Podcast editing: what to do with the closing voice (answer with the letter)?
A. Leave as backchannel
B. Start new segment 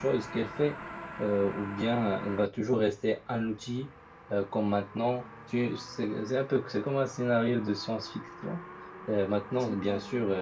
A